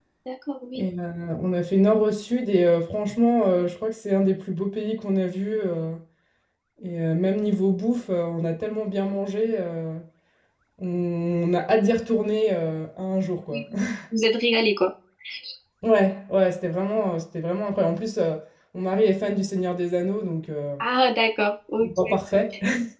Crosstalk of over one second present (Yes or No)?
No